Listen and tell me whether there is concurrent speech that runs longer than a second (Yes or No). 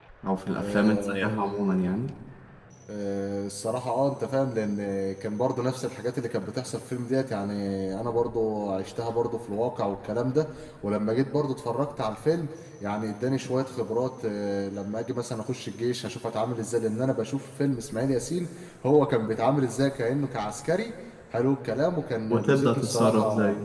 Yes